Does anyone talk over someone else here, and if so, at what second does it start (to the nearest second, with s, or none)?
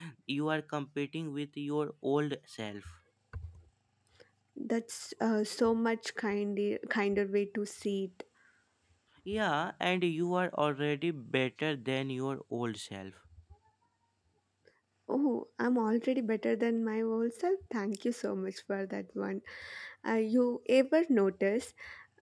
none